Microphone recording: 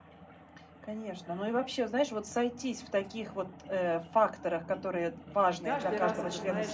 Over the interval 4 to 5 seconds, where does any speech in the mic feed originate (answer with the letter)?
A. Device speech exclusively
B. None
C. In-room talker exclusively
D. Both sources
A